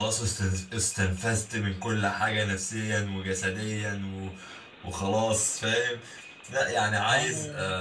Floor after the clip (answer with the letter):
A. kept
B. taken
A